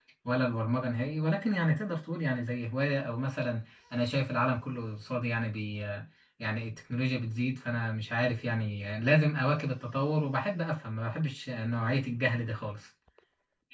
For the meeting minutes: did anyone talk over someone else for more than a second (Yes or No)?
No